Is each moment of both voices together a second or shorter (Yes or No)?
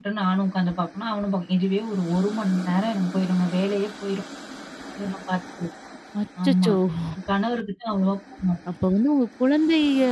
Yes